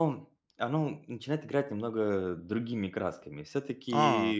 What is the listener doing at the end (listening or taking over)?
listening